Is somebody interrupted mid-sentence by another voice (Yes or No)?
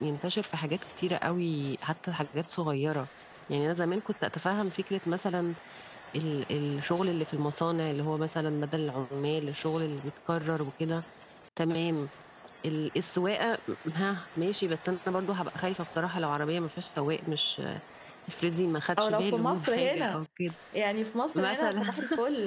Yes